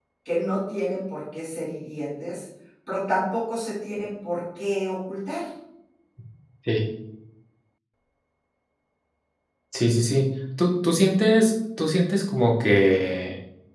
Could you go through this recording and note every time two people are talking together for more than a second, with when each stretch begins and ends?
none

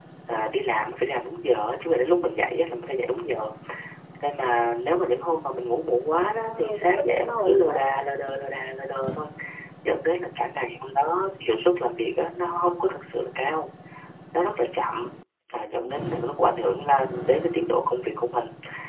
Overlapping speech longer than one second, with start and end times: 6.4-7.8

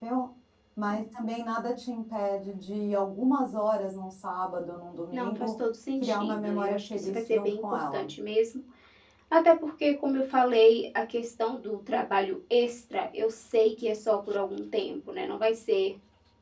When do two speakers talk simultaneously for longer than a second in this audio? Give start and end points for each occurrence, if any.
6.0-8.1

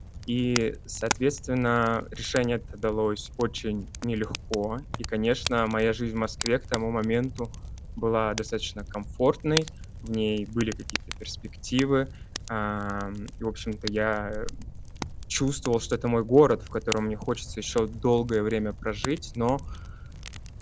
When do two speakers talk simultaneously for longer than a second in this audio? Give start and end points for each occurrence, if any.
none

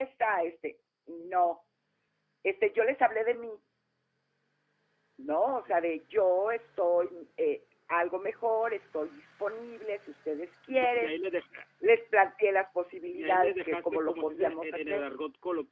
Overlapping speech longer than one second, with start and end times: 13.1-15.0

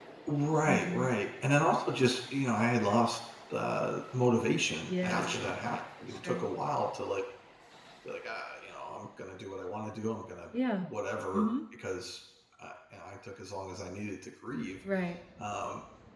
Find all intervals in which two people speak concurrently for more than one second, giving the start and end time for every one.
none

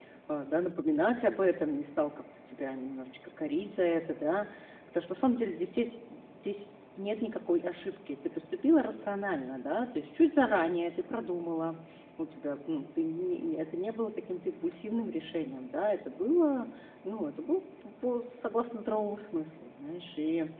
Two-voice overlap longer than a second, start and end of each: none

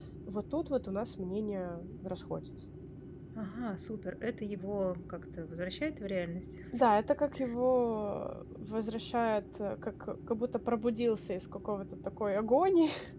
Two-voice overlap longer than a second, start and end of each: none

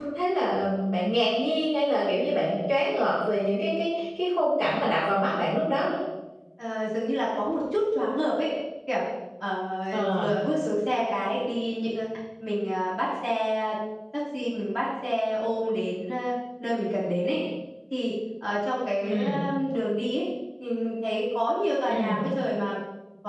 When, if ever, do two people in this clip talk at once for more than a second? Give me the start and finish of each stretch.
none

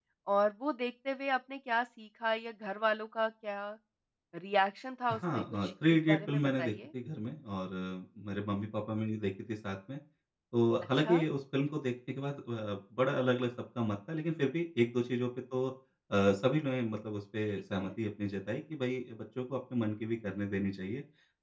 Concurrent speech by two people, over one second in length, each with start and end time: 5.1-6.7

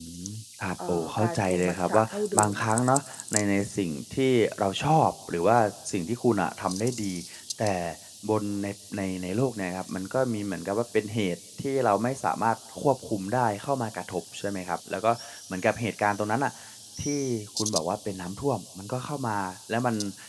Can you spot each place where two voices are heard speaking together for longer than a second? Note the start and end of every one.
0.9-2.8

